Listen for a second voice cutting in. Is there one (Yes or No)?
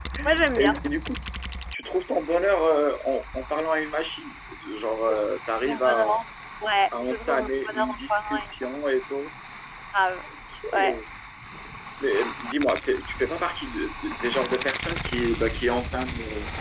Yes